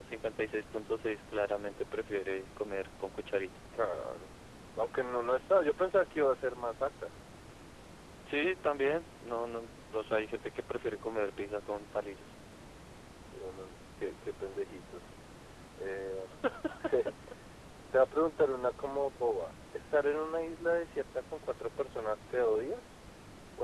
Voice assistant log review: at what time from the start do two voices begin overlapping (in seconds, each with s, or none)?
none